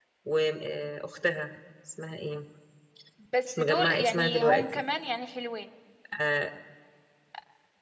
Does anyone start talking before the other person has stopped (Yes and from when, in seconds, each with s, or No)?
Yes, from 3.5 s